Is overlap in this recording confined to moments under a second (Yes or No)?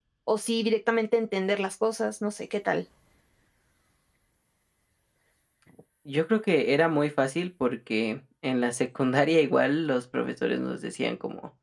Yes